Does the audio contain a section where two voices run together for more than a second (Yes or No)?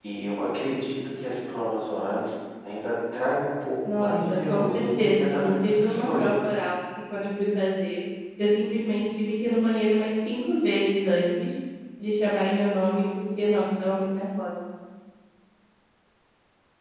Yes